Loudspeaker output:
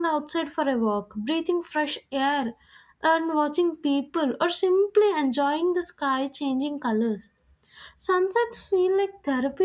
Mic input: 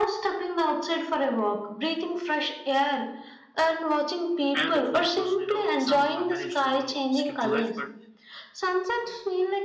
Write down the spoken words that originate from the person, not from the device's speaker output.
I am the foodie person, you know. Somehow I managed to, you know, skip the lunch, but

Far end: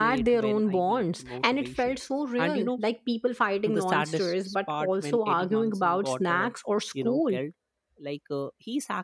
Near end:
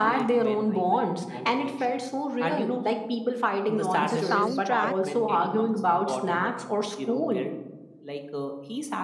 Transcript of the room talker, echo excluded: the soundtrack

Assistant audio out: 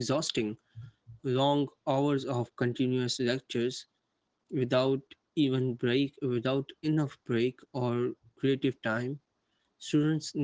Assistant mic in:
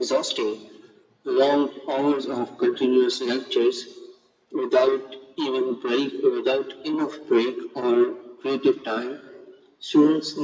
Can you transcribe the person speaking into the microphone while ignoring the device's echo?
none

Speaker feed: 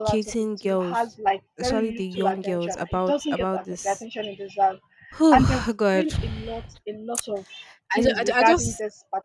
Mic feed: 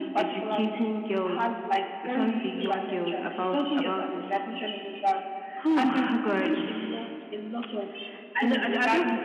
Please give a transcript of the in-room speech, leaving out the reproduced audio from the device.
none

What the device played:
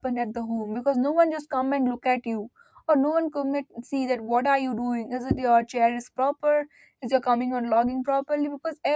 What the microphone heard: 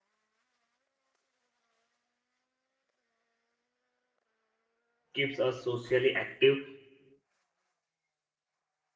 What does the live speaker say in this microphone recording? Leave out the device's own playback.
keeps us socially active.

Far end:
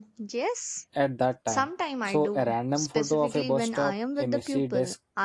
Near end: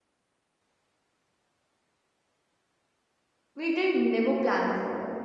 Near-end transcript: we did never plan for

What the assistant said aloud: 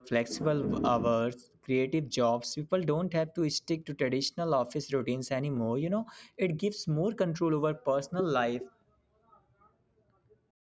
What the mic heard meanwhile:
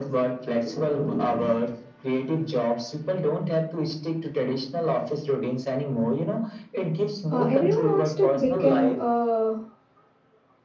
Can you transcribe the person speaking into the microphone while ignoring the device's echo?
uh, everyone wants to become uh,

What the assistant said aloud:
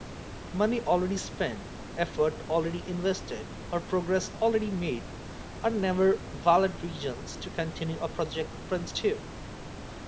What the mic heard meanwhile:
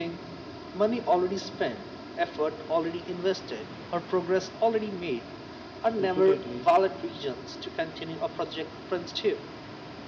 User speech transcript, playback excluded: repeatedly,

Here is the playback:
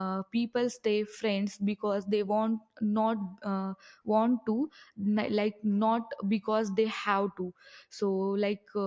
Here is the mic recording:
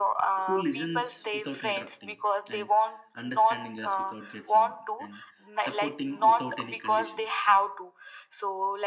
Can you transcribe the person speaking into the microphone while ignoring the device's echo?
who listens without interrupting and understanding us without judging and supporting without any conditions.

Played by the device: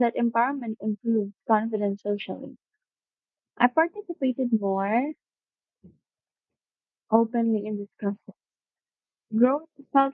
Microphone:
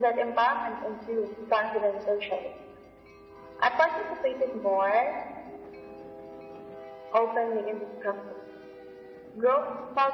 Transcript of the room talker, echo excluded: none

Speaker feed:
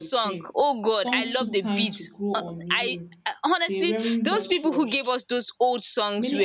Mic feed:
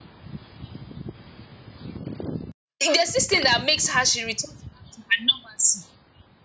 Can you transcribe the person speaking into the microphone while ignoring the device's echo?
there's this thing that makes her she returns back to her normalcy

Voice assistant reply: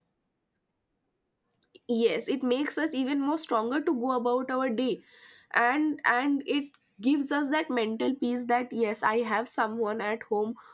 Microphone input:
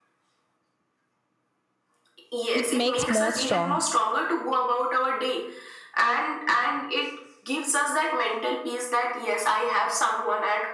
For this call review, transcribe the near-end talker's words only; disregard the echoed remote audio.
It makes more strong.

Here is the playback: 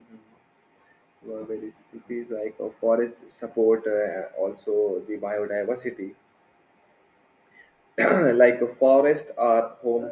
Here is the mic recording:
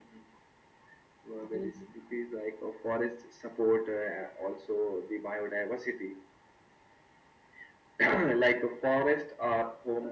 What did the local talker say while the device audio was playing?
Mhm,

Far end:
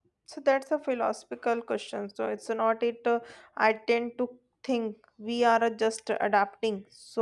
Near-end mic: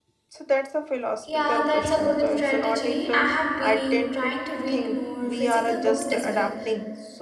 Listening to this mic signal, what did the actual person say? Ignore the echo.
Yeah, that's a good strategy. I have been trying to read more physical books as well,

